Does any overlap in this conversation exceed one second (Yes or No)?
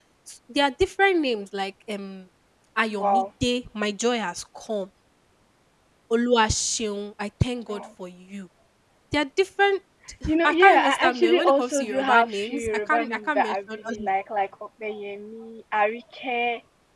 Yes